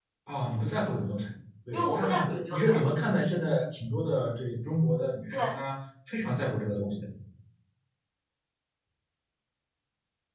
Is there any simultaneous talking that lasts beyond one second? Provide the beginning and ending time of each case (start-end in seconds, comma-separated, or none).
1.7-2.9